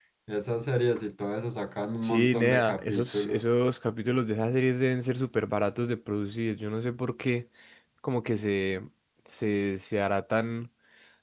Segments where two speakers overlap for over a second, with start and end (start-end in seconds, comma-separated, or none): 2.0-3.4